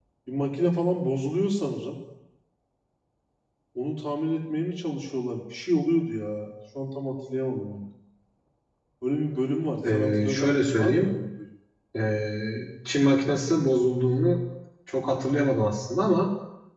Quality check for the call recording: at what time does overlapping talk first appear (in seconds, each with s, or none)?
9.8 s